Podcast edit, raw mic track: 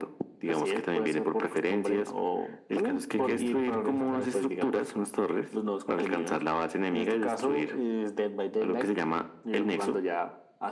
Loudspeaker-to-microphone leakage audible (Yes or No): Yes